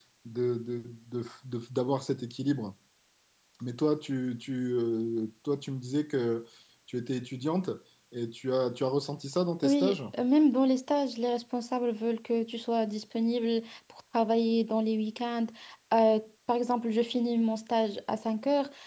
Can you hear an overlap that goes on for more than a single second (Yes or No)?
No